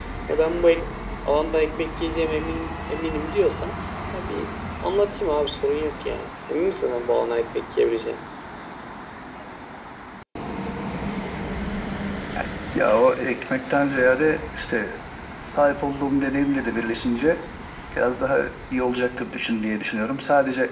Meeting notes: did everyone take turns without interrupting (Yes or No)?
Yes